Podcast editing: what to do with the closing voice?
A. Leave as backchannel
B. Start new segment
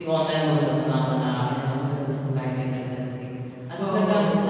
A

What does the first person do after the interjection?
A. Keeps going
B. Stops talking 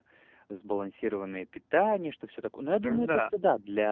A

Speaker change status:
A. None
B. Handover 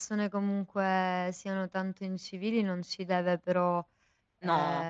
A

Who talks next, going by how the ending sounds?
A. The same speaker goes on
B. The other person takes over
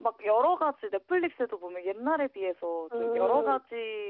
A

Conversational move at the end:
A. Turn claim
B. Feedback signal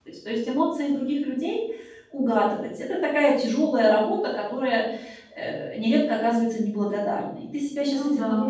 B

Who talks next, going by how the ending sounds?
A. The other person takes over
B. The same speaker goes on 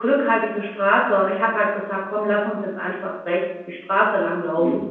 A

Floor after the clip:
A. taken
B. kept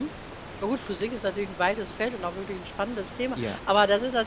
B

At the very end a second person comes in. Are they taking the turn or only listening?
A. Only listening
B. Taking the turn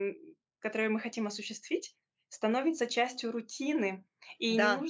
A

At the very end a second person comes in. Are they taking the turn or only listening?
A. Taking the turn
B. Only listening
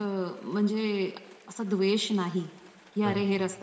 B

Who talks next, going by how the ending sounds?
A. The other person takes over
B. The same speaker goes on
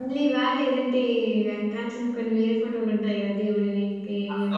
A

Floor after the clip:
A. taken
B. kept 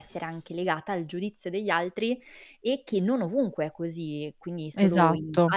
B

